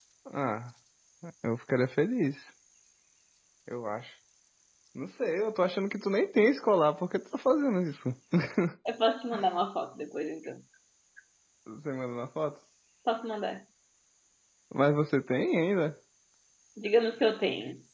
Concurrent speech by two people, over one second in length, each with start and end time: none

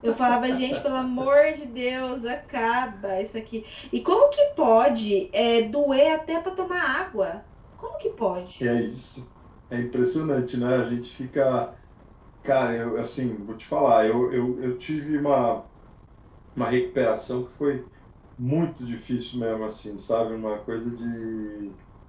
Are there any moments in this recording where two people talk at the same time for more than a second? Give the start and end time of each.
none

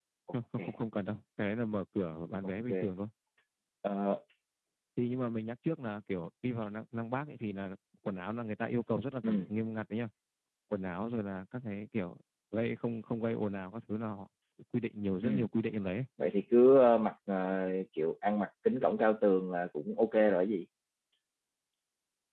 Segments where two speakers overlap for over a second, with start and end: none

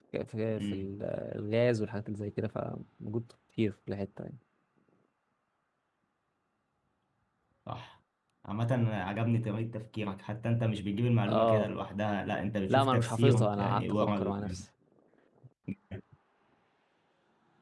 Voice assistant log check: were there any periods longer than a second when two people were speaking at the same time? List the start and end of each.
12.7-14.6

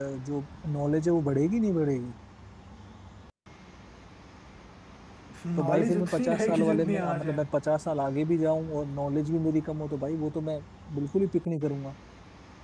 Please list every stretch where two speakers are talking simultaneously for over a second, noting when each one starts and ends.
5.6-7.4

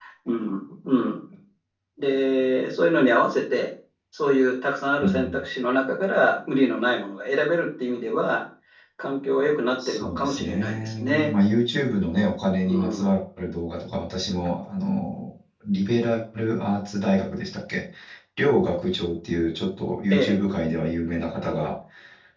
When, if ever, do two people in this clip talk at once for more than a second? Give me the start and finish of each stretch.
9.9-11.3

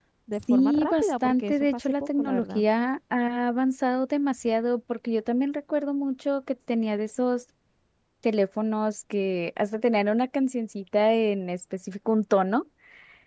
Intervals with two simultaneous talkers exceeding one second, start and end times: 0.5-2.6

